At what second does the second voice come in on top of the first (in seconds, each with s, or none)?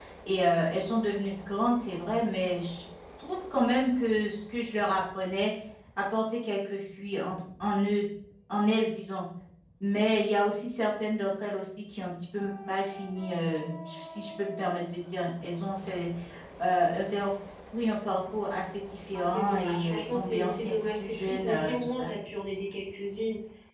19.1 s